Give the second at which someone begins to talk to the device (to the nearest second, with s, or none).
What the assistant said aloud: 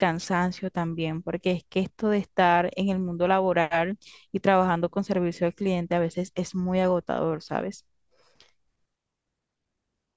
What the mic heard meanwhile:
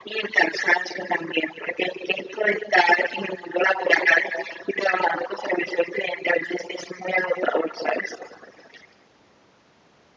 none